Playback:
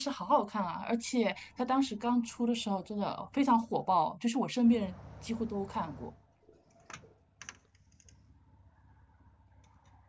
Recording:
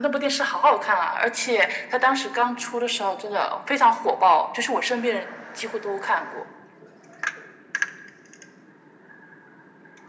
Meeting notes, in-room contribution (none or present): none